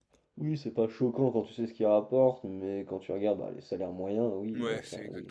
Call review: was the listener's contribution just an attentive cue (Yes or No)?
No